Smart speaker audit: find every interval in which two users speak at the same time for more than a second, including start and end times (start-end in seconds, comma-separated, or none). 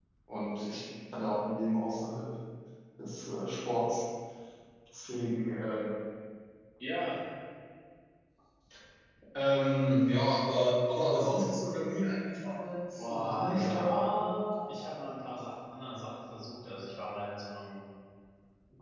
12.9-14.4